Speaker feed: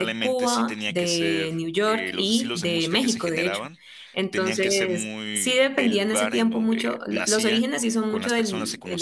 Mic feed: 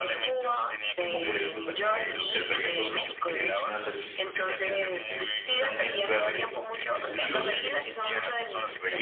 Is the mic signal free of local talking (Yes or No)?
No